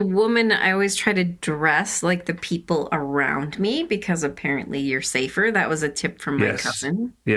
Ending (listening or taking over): taking over